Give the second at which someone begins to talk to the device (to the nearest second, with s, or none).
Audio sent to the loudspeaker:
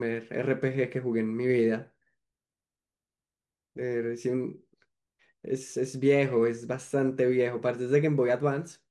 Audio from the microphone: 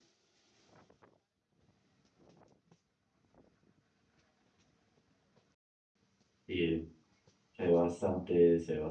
6 s